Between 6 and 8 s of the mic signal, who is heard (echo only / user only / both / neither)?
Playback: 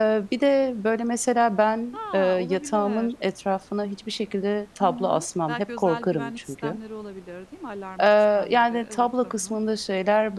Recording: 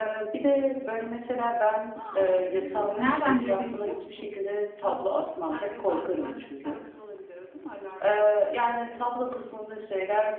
echo only